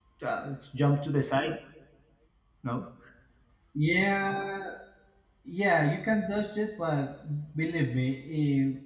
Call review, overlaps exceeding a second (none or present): none